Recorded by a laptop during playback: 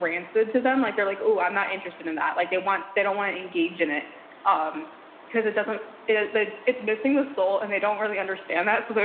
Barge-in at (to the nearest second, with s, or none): none